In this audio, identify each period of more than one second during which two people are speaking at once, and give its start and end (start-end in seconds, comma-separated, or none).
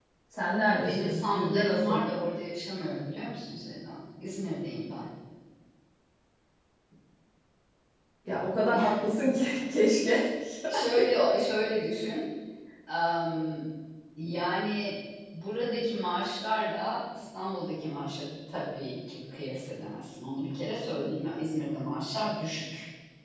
0.8-2.0